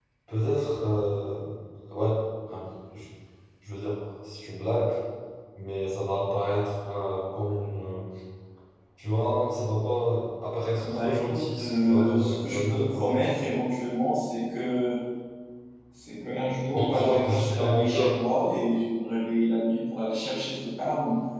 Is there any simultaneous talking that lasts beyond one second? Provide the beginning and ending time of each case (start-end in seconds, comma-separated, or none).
10.8-13.1, 16.6-18.2